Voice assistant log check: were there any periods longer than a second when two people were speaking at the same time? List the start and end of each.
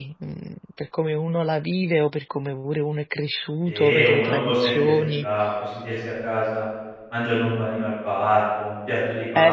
3.6-5.3

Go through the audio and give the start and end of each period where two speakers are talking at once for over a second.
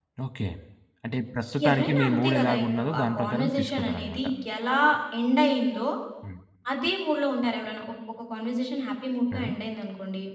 1.7-4.2

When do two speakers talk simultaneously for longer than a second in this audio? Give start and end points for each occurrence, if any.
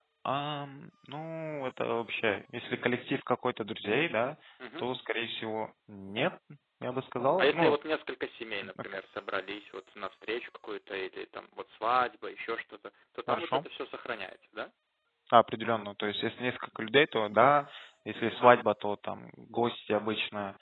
none

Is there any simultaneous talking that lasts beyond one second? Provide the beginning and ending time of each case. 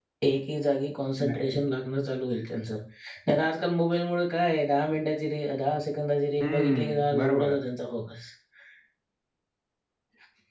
6.4-7.6

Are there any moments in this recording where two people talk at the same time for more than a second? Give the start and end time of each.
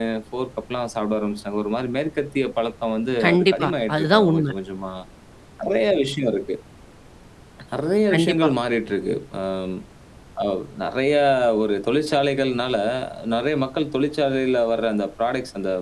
3.2-4.5

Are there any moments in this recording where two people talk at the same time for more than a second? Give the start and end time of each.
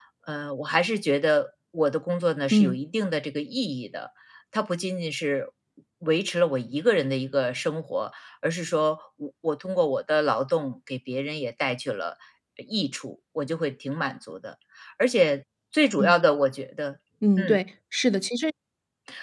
none

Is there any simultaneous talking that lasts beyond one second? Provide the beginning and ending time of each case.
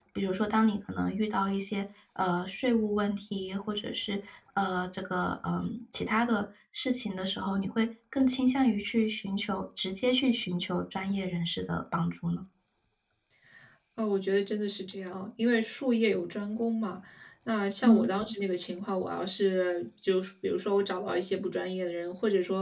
none

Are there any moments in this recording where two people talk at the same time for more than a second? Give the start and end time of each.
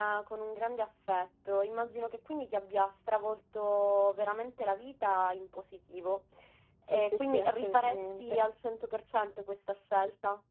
6.9-8.4

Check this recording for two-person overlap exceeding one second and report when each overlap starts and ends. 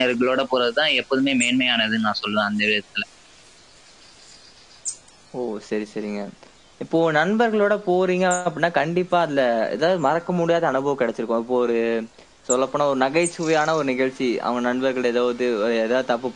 none

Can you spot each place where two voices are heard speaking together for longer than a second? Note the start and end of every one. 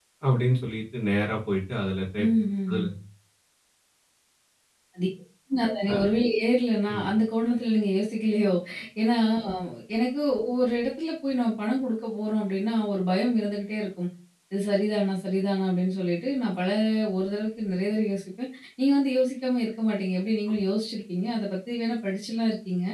none

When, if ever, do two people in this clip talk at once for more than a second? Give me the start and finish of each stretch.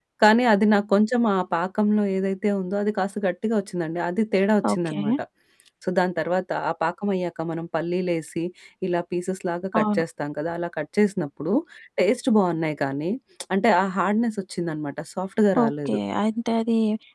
none

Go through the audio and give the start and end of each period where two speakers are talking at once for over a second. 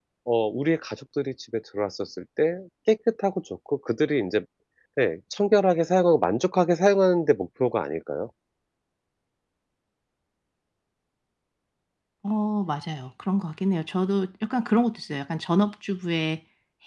none

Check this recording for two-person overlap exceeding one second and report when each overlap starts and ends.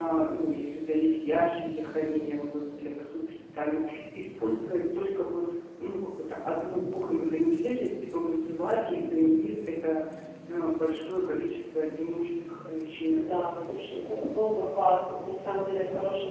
none

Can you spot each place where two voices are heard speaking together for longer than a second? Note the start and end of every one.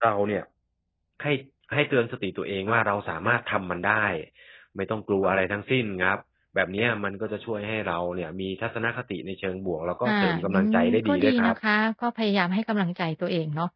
10.1-11.5

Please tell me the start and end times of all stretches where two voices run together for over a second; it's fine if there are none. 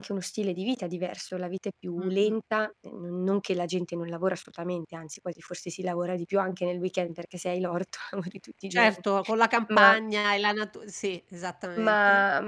none

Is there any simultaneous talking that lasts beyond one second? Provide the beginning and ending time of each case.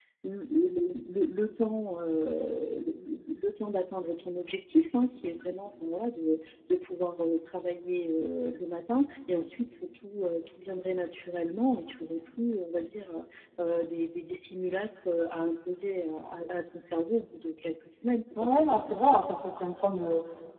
none

